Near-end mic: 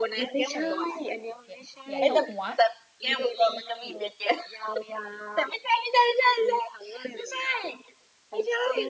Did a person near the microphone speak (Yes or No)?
Yes